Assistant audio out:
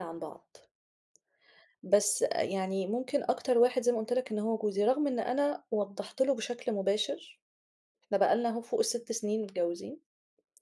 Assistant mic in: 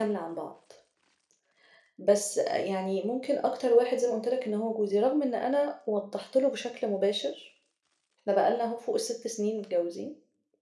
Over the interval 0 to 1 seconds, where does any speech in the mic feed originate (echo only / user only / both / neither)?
echo only